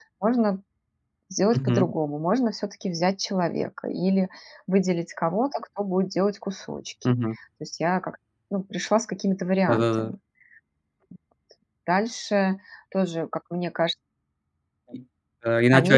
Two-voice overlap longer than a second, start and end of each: none

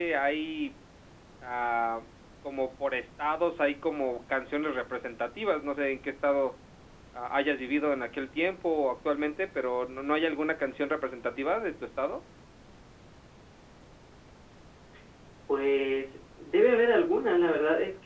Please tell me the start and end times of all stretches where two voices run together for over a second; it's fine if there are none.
none

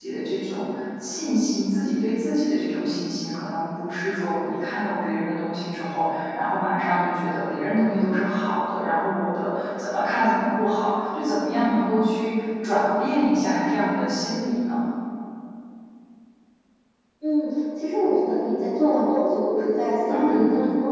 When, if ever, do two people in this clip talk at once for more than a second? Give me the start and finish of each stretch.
none

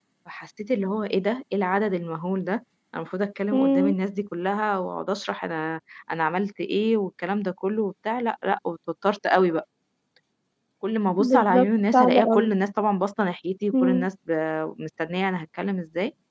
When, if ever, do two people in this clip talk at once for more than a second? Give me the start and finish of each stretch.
11.2-12.5

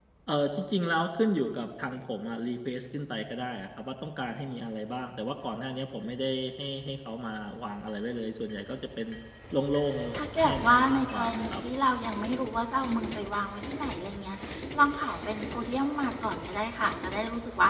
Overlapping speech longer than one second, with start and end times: 10.2-11.6

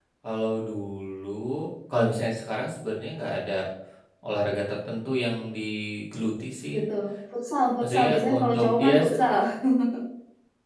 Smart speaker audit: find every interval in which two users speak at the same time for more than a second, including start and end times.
7.8-9.2

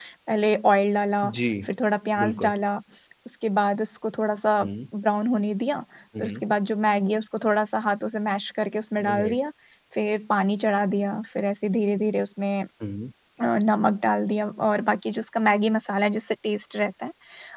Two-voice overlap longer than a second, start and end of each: none

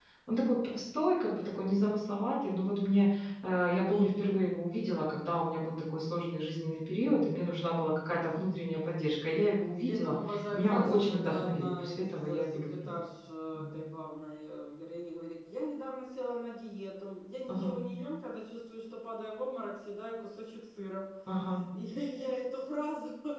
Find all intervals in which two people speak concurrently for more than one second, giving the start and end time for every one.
9.9-12.9

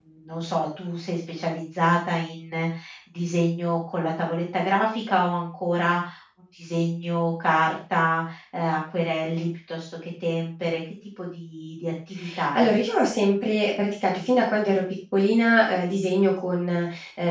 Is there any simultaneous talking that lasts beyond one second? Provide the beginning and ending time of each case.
none

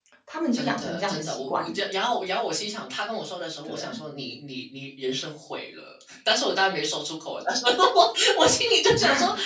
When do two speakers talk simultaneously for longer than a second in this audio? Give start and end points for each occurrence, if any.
0.5-1.8

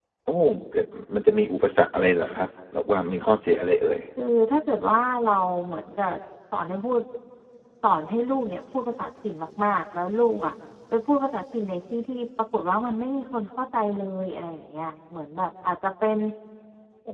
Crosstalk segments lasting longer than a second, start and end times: none

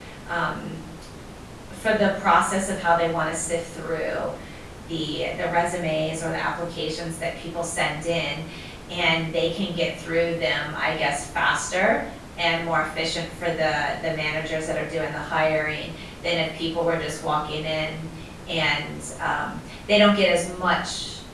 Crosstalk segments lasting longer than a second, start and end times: none

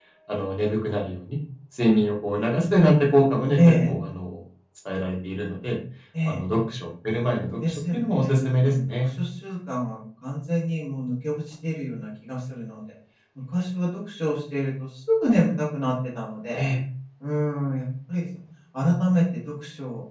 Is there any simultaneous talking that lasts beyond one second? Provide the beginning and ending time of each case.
7.3-9.1

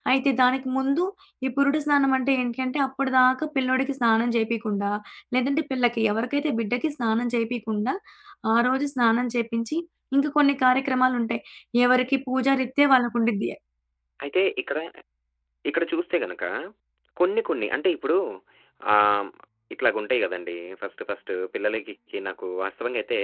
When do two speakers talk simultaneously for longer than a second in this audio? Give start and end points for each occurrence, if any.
none

